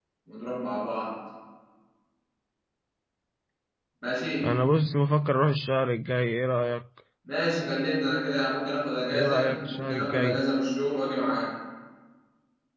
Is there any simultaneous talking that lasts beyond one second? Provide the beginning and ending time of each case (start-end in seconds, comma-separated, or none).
9.1-10.4